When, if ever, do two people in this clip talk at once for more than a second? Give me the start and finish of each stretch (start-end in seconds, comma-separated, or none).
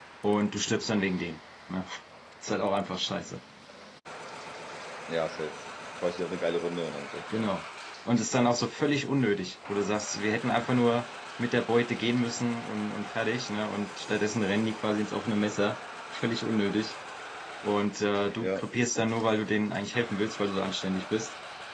none